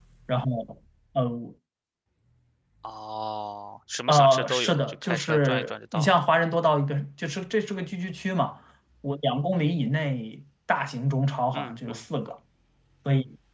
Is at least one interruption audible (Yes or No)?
Yes